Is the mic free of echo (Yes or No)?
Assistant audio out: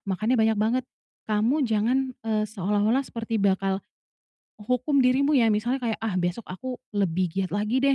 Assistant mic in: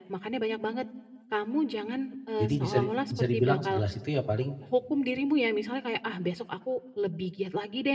No